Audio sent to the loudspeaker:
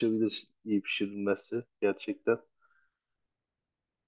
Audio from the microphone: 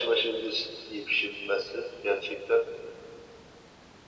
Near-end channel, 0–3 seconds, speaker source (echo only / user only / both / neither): echo only